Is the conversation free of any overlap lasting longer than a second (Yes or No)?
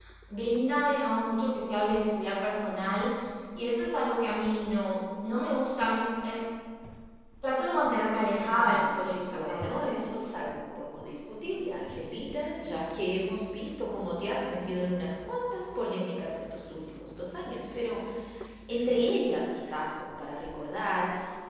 No